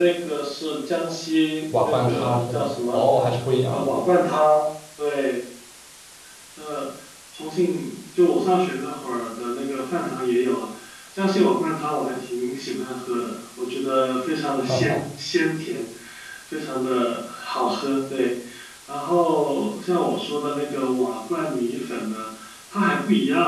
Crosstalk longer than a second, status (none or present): present